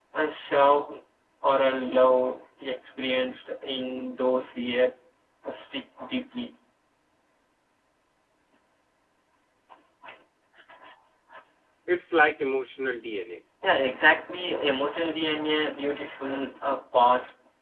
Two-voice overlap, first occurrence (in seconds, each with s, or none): none